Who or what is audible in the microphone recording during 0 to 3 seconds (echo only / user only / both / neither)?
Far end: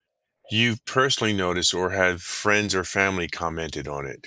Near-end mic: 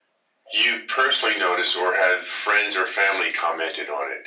echo only